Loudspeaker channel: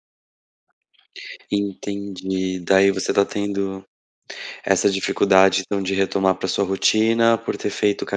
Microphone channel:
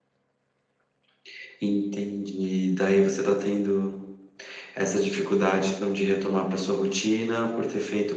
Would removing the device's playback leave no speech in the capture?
Yes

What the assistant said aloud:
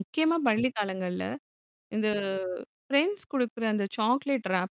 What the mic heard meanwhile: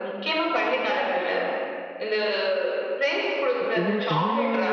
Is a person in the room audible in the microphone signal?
Yes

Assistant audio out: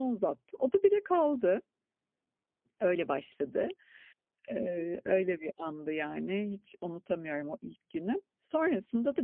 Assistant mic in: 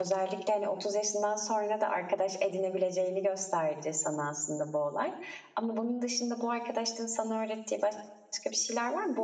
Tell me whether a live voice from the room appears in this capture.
Yes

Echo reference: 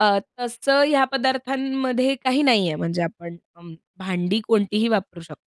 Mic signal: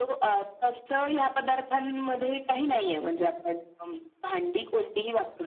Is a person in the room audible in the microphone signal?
No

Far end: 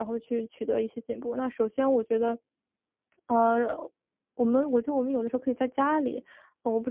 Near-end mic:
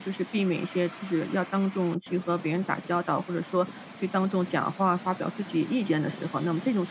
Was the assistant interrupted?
Yes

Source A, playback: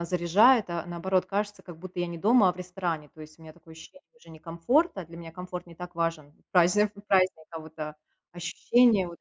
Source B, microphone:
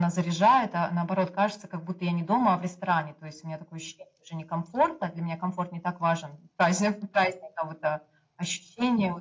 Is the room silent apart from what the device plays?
Yes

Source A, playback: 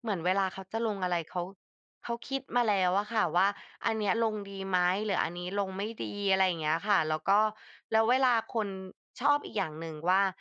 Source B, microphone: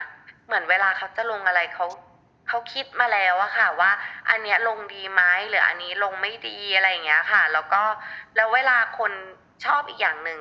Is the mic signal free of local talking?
Yes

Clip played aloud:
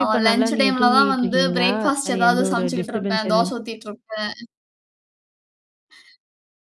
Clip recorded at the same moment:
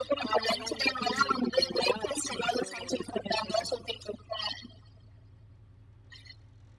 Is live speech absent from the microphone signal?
Yes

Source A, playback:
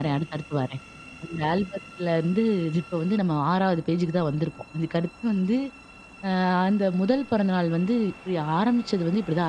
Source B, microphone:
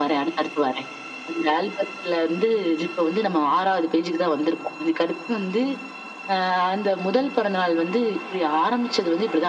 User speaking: No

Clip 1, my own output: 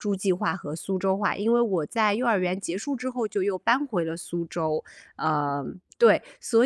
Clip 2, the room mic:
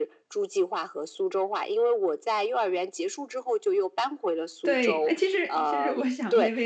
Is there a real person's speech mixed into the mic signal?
Yes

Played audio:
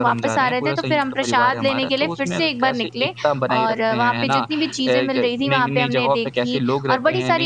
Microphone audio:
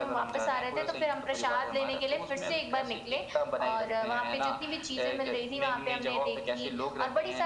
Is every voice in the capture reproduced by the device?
Yes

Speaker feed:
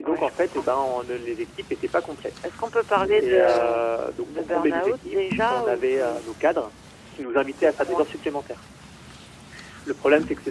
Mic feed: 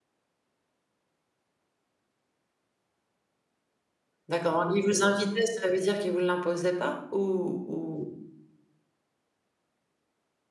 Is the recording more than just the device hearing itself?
Yes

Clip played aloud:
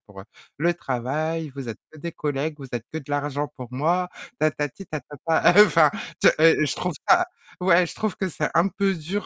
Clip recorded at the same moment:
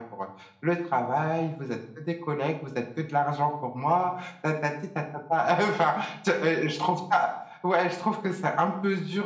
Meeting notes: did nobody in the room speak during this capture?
Yes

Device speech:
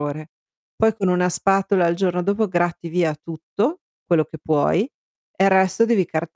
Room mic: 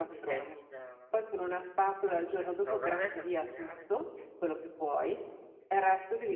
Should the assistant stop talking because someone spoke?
Yes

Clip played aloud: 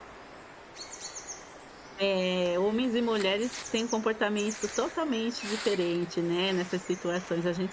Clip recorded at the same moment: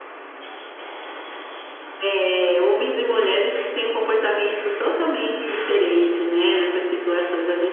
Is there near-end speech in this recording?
No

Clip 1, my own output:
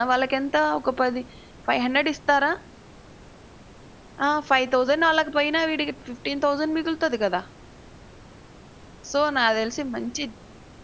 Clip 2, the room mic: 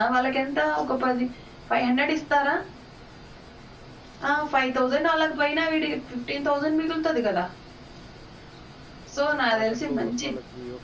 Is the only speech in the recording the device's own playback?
No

